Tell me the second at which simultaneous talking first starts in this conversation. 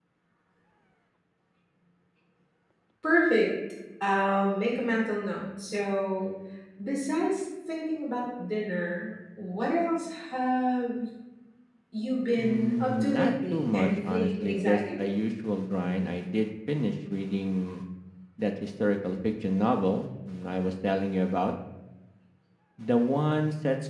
12.4 s

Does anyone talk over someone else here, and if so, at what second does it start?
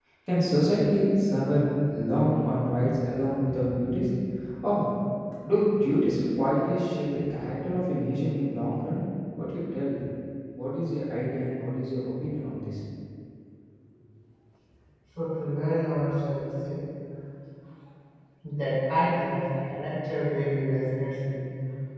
none

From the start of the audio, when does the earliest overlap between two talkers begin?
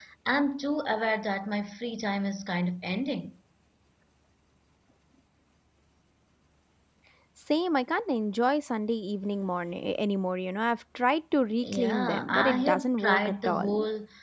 11.6 s

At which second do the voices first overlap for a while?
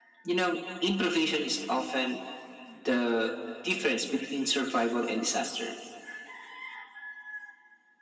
none

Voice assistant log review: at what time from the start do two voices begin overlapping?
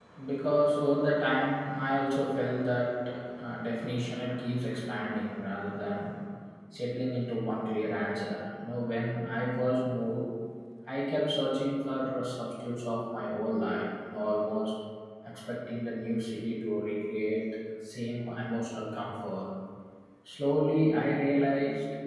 none

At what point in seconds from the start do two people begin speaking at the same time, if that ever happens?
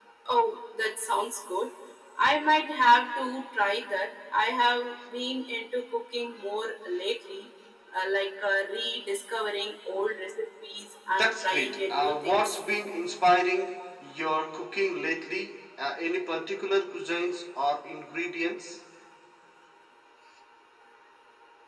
11.1 s

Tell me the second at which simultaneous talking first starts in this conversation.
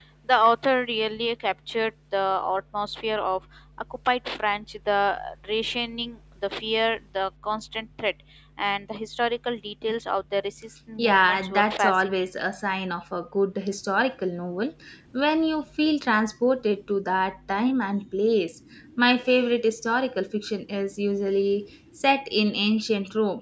11.0 s

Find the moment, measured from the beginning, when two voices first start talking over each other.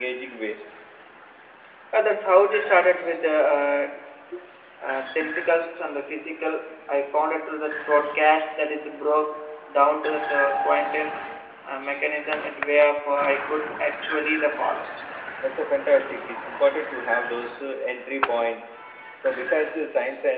none

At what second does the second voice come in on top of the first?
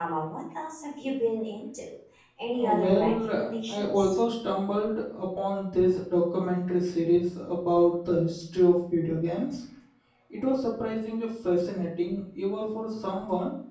2.8 s

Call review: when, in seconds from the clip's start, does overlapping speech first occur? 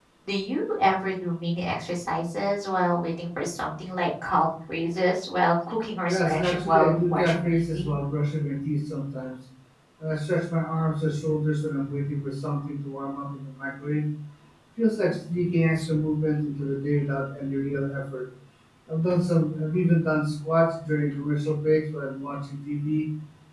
6.1 s

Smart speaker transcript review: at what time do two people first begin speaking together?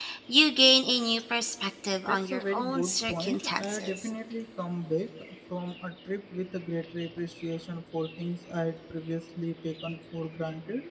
2.1 s

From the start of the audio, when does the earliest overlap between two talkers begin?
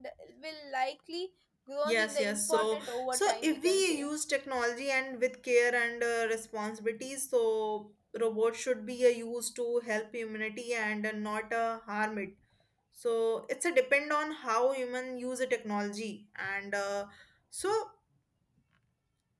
1.8 s

